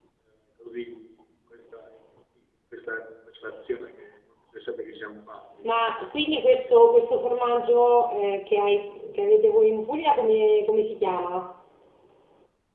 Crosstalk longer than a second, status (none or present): none